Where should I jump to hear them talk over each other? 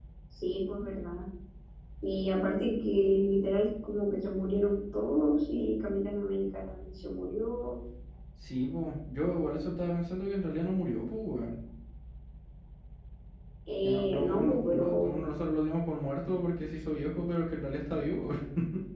13.8 s

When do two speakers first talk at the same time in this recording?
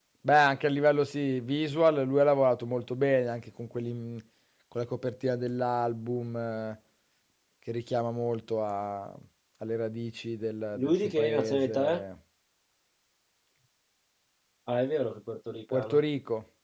10.8 s

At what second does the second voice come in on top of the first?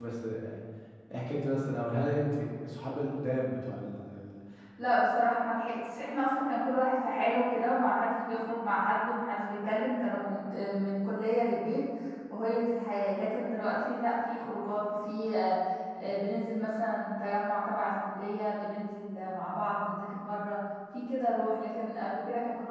none

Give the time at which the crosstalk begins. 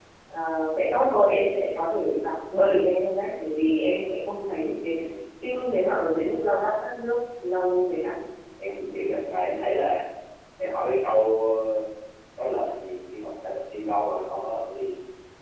none

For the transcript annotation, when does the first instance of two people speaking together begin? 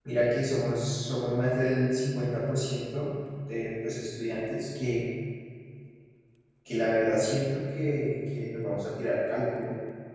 none

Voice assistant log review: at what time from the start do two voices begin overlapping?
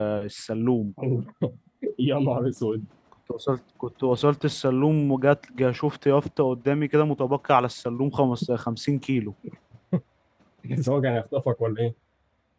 none

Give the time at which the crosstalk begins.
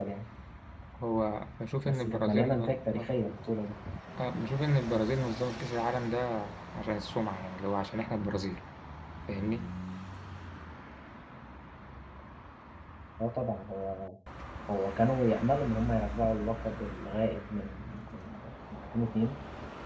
1.9 s

